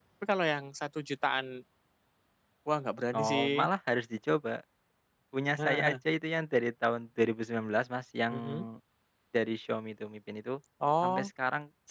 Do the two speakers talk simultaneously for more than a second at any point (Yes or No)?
No